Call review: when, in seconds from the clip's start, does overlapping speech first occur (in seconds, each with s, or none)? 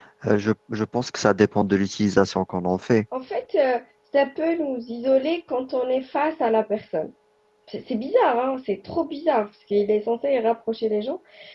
none